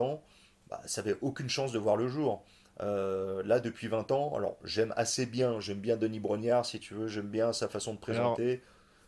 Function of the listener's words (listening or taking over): listening